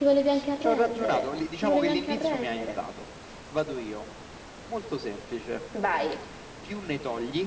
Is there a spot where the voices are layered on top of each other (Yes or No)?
Yes